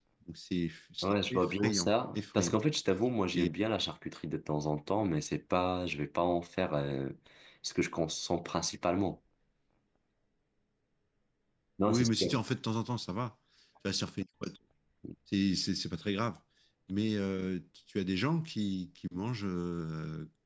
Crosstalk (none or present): present